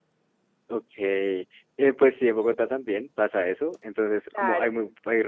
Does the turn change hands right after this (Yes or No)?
No